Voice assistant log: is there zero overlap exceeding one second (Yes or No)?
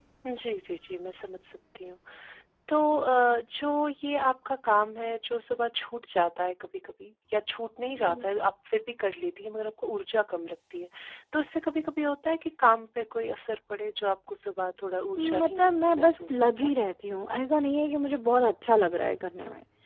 No